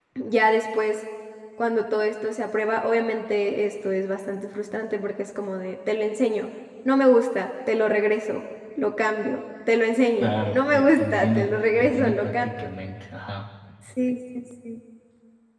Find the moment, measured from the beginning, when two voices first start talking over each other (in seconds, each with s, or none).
10.2 s